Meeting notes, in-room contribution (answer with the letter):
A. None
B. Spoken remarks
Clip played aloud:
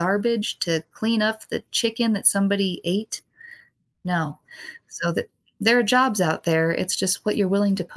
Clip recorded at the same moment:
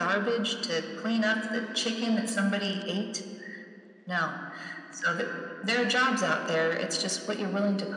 A